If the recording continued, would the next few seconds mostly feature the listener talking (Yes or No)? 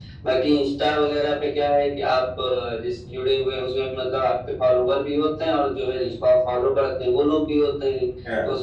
No